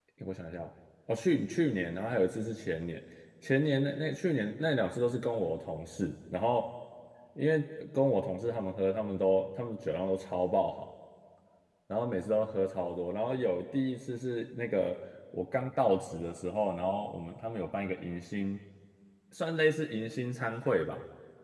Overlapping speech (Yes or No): No